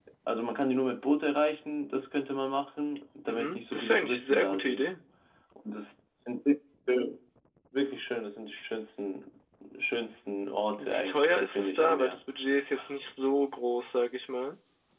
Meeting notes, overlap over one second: present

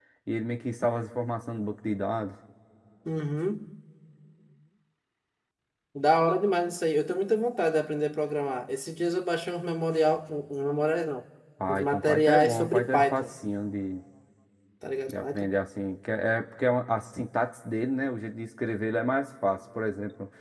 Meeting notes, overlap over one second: present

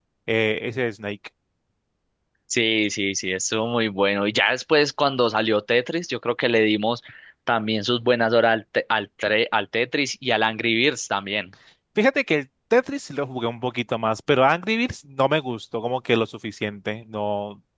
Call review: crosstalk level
none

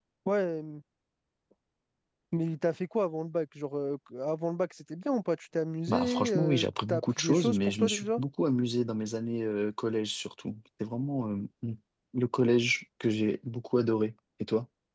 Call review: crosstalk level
present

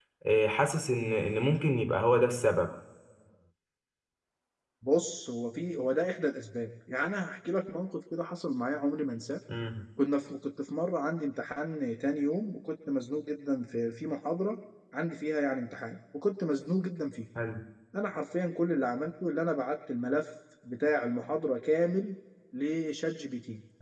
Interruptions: none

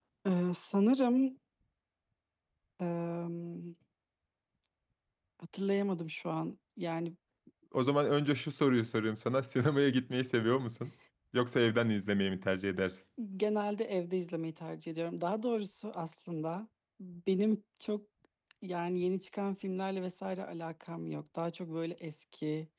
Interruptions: none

